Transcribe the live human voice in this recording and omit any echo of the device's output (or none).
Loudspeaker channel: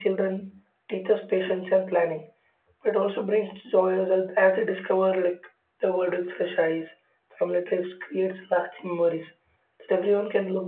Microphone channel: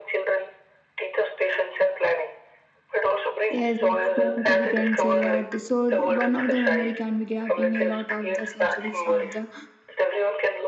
Yes, it's going to be tense a lot. So one of the memory can be grabbing a lot of the centuries of the